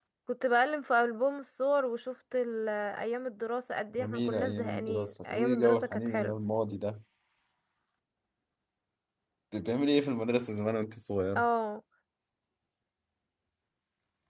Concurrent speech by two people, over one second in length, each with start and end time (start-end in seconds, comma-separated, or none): 4.0-6.3